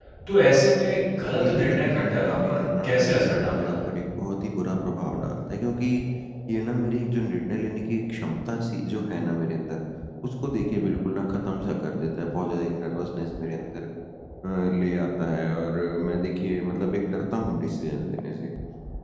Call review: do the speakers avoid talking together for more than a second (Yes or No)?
No